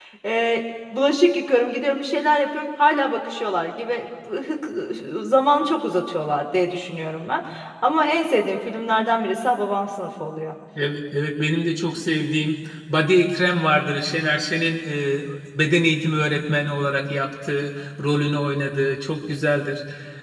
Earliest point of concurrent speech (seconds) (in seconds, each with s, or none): none